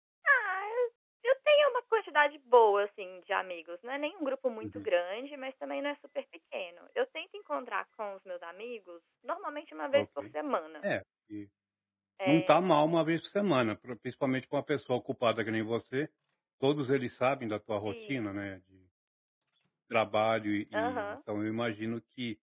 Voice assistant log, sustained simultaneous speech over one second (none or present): none